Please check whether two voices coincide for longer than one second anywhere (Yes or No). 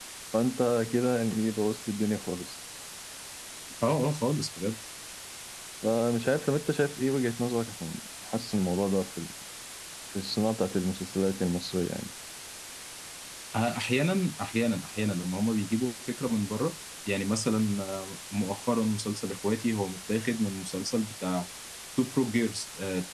No